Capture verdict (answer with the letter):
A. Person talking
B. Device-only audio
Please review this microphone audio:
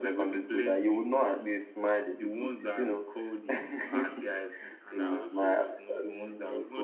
A